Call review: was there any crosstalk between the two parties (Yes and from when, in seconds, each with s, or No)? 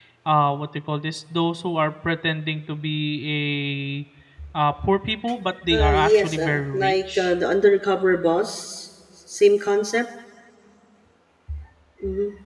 Yes, from 5.7 s